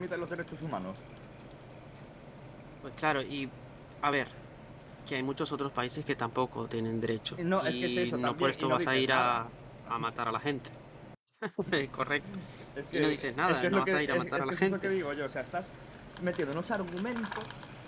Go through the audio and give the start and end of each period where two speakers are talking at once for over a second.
7.4-9.4, 12.9-14.9

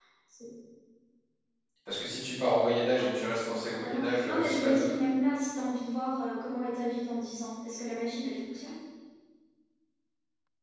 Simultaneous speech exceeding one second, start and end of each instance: 3.0-4.9

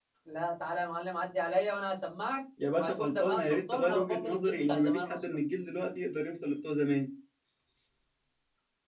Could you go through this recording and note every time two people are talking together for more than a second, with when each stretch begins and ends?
2.8-5.2

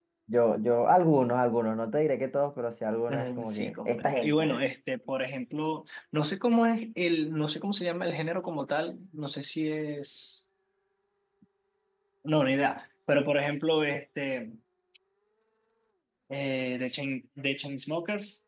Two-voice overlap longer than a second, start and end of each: 3.1-4.6

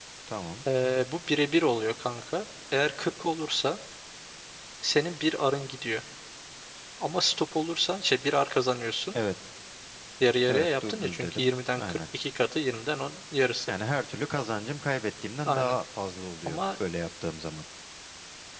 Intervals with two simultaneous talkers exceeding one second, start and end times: 10.5-12.0

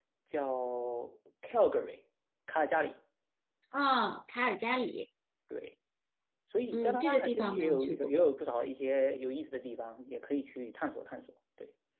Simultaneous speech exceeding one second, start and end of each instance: 6.7-8.1

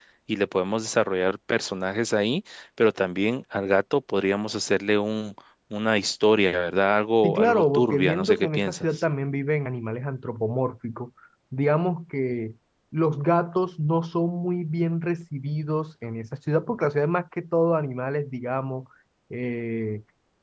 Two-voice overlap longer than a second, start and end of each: 7.2-8.8

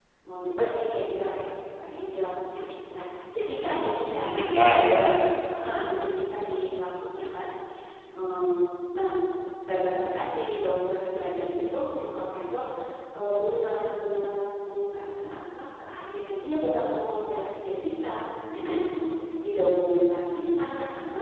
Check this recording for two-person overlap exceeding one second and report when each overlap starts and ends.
none

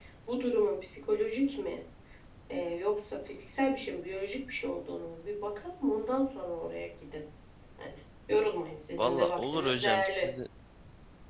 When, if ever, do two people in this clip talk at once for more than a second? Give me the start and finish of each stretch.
9.0-10.3

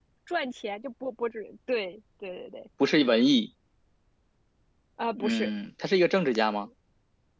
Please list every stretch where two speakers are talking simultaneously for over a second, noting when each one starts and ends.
none

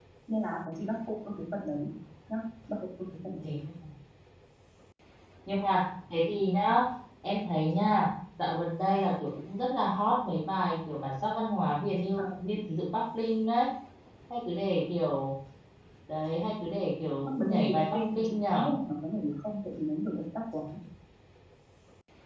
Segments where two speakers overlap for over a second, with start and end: 17.4-18.7

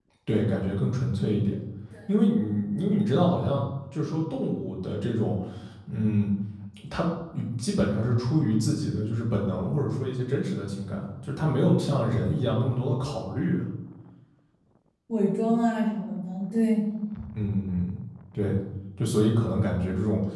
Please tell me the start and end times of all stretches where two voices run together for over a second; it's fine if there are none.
none

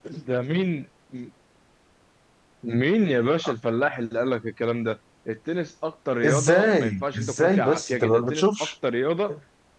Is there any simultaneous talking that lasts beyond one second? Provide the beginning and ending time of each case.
6.2-8.7

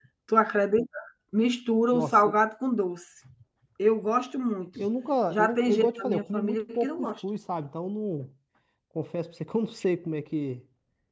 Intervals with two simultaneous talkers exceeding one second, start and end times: 5.3-7.1

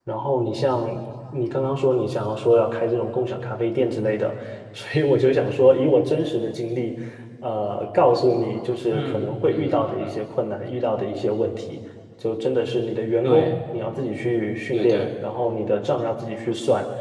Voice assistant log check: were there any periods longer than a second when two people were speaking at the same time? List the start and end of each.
8.9-10.2

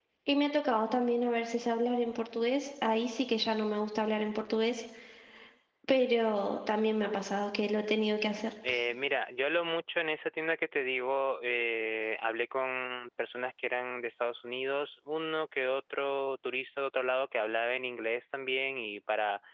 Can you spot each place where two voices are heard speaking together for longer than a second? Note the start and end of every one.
none

